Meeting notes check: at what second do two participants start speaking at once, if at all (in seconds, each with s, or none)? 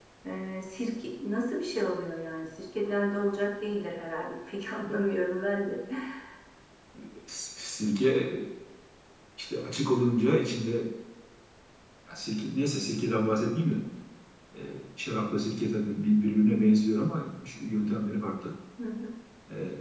none